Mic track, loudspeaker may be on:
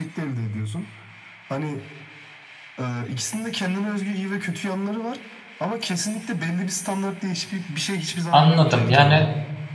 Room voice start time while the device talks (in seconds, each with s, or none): 8.3 s